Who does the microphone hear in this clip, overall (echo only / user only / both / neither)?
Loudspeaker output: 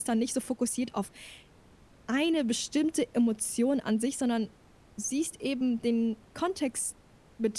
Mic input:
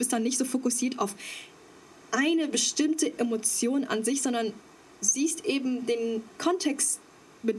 echo only